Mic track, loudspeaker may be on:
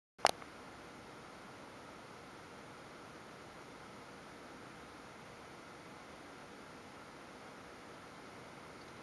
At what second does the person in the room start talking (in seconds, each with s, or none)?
none